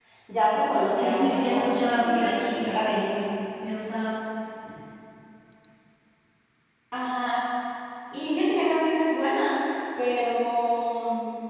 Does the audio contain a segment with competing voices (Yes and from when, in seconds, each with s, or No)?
Yes, from 0.9 s